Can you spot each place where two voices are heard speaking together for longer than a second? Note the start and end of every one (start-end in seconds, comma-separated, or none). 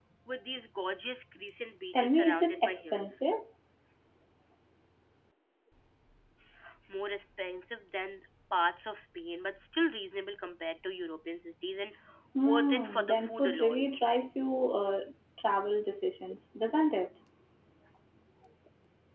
1.9-3.3, 12.4-13.8